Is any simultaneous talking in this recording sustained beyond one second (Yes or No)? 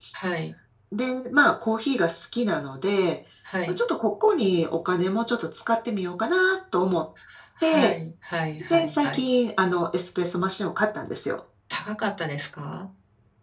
No